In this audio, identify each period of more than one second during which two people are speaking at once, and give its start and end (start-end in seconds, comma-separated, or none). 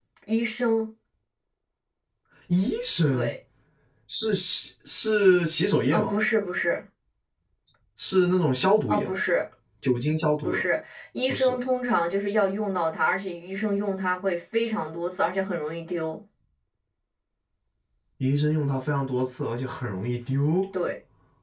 none